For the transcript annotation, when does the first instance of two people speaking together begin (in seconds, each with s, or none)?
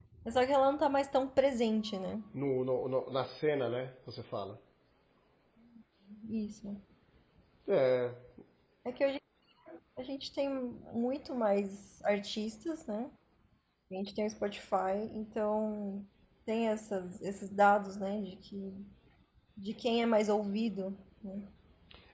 none